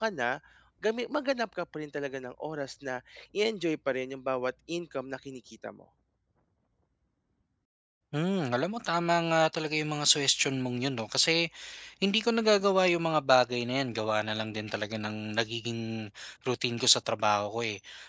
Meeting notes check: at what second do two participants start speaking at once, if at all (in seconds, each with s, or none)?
none